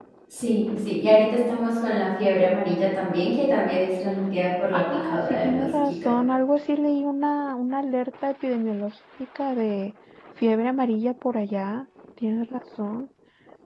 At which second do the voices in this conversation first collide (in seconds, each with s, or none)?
4.7 s